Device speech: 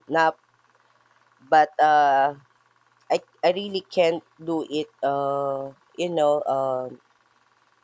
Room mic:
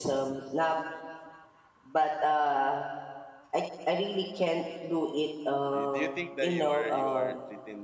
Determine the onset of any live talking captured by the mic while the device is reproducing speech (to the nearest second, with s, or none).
6 s